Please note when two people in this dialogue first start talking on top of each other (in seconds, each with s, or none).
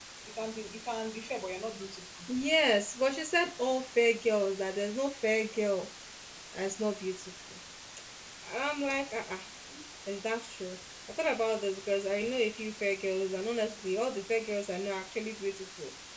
none